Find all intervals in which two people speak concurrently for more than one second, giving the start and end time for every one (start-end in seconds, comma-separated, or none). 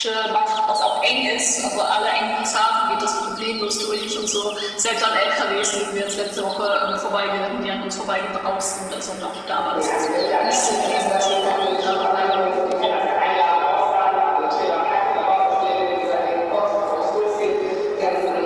9.7-12.5